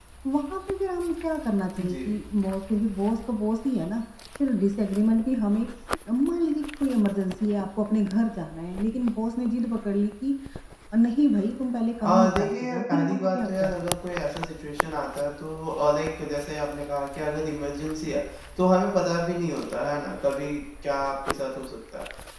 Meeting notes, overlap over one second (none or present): present